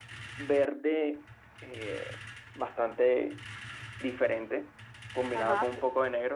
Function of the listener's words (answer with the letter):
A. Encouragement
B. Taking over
A